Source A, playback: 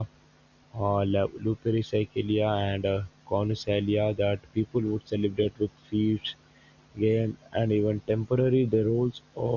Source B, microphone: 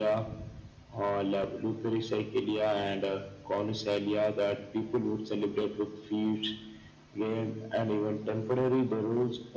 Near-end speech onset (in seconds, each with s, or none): none